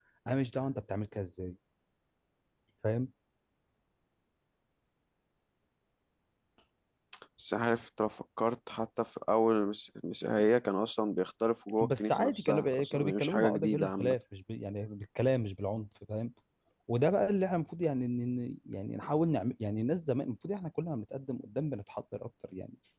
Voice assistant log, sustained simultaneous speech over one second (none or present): present